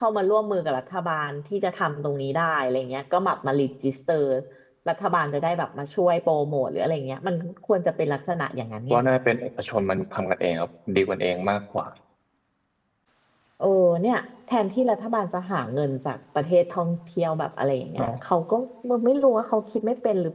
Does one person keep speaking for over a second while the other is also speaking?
No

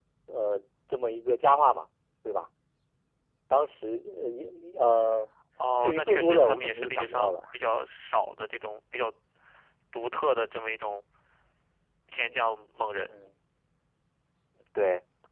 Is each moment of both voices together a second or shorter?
No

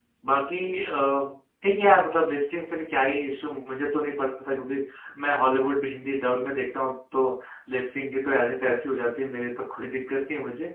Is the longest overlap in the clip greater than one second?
No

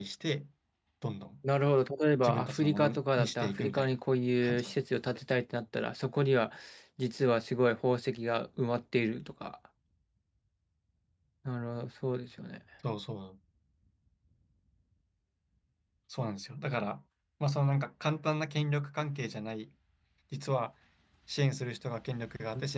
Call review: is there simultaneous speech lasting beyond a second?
Yes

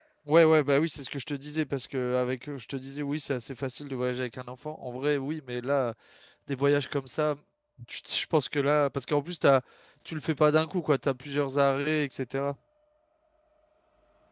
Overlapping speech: No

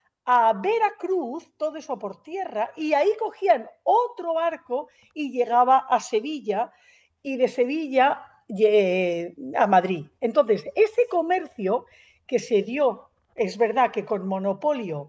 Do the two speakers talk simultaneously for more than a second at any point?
No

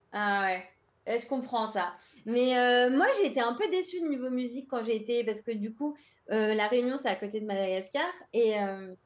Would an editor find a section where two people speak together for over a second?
No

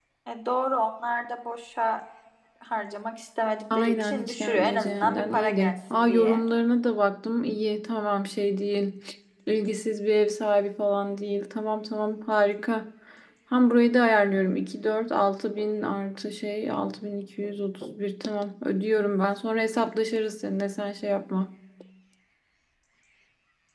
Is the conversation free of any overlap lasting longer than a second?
No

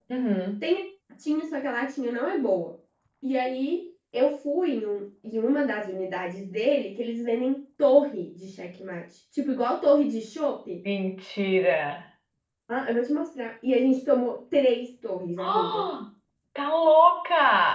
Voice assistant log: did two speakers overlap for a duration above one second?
No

